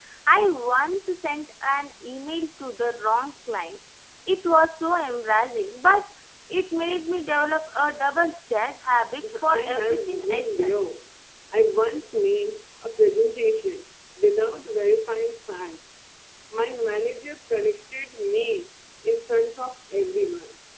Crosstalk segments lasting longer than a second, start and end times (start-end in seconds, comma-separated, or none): 9.5-10.8